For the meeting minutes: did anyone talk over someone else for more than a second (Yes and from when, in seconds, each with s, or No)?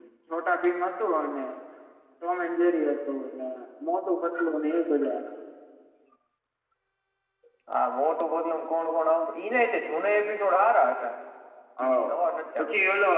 No